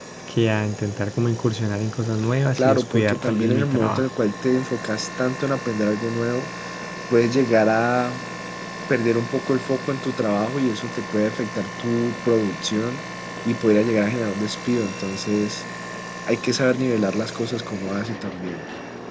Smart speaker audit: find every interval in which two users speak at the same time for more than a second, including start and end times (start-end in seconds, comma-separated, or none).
2.5-4.1